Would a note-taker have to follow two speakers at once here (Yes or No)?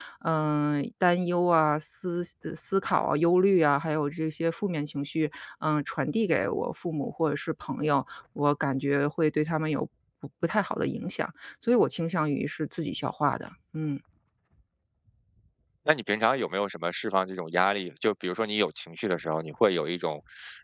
No